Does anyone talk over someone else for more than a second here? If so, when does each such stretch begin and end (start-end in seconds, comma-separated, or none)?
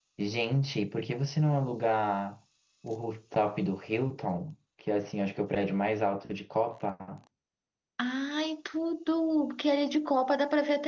none